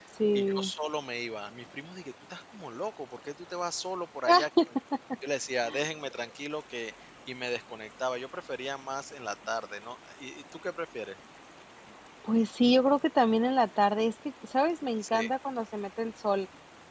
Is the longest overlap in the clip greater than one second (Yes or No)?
No